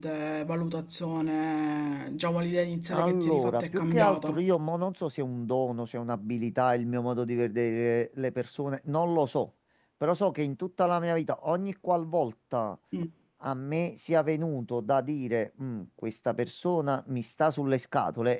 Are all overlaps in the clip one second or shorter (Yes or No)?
No